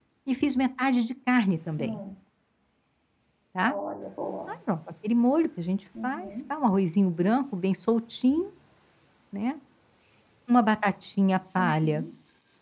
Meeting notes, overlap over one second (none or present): none